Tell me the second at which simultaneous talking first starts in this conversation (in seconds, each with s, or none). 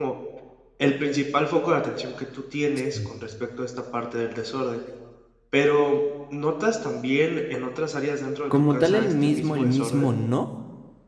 8.5 s